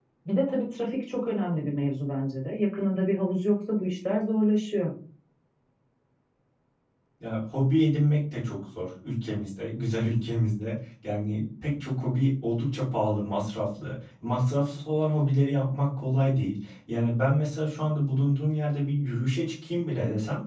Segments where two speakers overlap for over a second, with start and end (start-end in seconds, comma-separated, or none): none